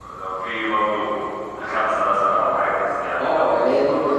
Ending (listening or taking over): taking over